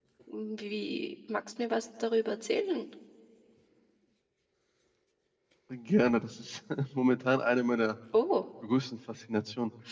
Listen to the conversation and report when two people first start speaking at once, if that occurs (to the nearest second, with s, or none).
none